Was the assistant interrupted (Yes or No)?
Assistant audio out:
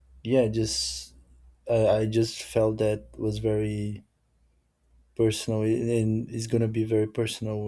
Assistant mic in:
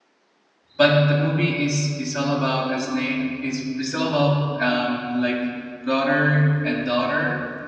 Yes